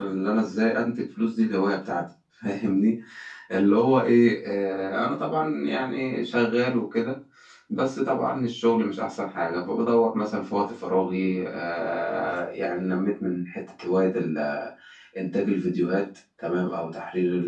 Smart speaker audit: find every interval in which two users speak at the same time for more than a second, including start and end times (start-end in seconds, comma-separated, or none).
none